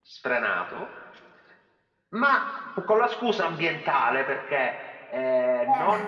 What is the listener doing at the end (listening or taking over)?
listening